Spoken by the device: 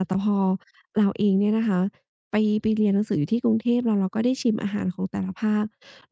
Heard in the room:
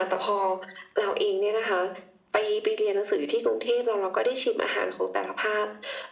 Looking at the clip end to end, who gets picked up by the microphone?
echo only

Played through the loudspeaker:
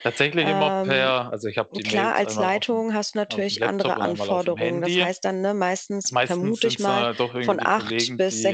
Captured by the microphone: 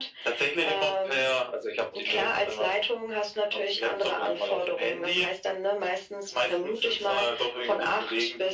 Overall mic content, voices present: echo only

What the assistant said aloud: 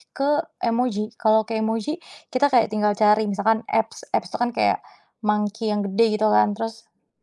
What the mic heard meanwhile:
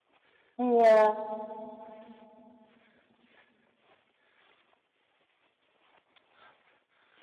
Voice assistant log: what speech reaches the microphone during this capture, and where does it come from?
user only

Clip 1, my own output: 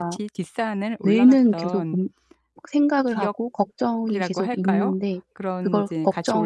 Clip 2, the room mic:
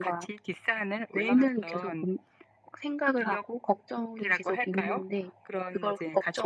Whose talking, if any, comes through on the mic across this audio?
echo only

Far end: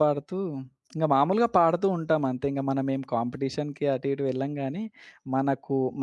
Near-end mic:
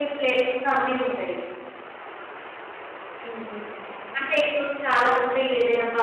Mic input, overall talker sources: user only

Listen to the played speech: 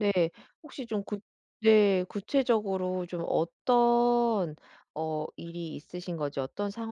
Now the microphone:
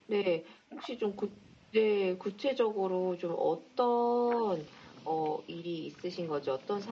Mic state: echo only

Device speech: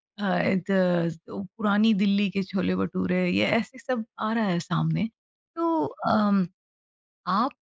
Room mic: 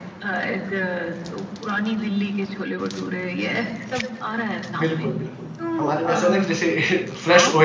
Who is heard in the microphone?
both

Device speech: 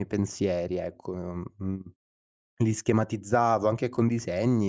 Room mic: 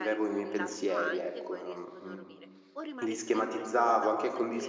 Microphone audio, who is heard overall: both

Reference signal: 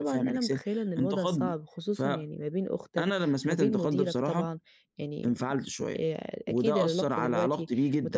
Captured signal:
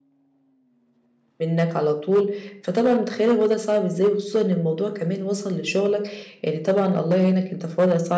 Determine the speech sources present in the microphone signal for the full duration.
user only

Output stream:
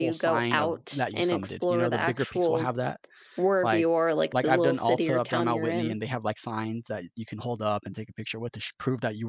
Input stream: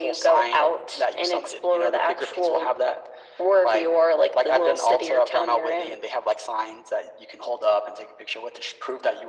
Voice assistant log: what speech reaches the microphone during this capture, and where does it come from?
echo only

